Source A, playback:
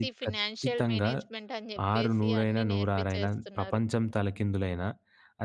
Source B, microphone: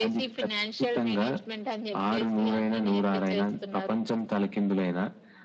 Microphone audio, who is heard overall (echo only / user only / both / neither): echo only